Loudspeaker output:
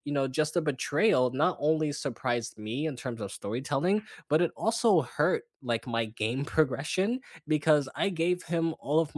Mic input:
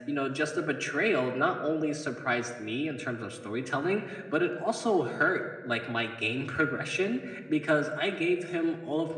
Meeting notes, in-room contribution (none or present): none